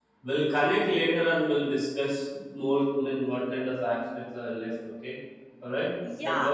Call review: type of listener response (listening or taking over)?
taking over